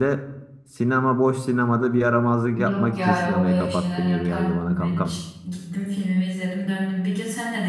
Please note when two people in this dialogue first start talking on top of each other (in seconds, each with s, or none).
2.6 s